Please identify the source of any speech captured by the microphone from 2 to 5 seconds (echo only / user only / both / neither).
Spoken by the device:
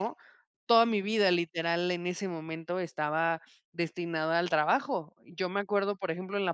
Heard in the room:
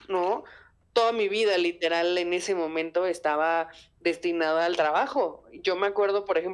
echo only